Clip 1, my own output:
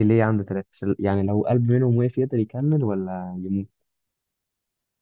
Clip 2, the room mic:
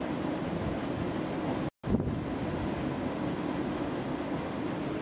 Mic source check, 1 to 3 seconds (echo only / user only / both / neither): neither